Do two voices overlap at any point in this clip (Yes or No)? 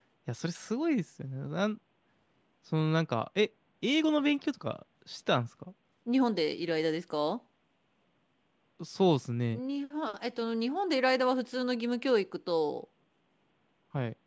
No